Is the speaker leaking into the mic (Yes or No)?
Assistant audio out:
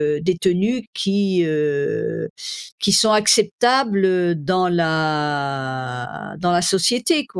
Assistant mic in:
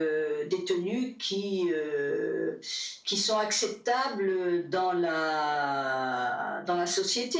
Yes